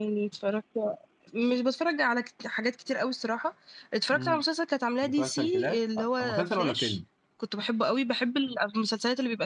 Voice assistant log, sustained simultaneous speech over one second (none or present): present